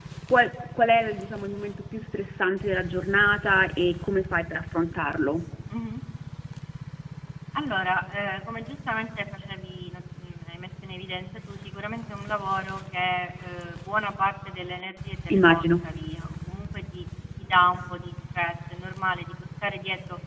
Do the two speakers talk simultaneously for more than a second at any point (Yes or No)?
No